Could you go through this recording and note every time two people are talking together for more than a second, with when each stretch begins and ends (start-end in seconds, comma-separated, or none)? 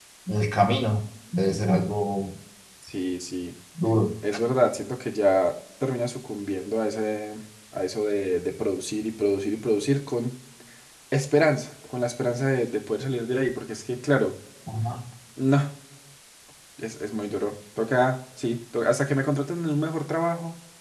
none